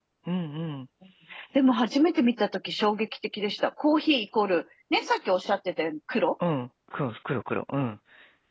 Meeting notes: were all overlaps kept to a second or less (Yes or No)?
Yes